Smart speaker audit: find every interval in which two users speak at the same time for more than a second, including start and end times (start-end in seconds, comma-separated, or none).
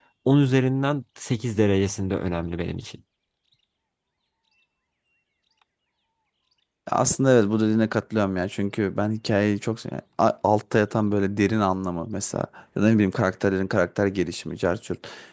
none